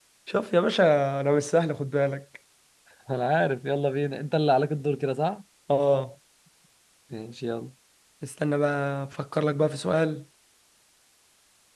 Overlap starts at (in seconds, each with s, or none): none